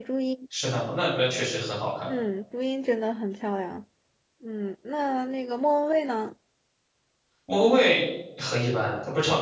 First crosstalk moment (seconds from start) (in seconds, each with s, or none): none